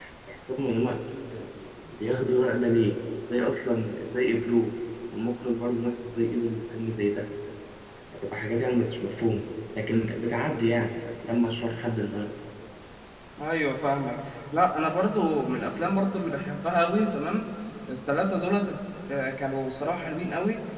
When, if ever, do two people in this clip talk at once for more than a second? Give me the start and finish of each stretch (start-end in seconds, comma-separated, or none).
none